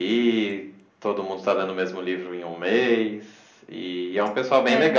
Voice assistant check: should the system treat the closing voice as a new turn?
No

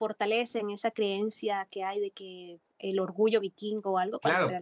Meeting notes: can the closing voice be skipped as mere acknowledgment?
No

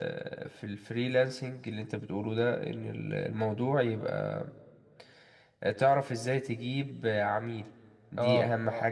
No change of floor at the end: Yes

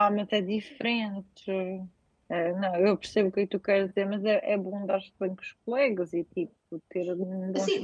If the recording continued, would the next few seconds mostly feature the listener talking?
Yes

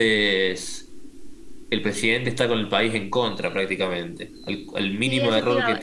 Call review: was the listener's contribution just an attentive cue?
No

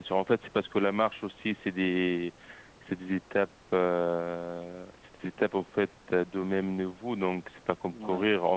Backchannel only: Yes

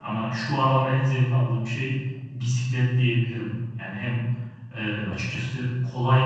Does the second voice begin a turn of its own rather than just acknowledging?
No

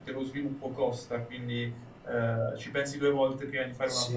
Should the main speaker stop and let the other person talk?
Yes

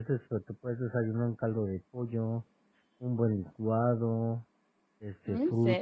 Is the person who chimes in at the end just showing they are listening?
Yes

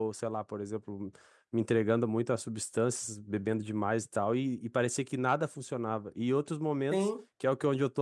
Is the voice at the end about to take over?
No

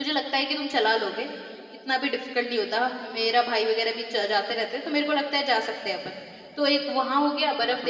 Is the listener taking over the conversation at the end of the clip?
Yes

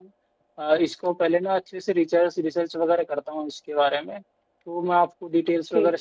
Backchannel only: Yes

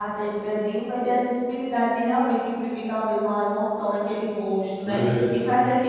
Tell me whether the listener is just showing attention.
Yes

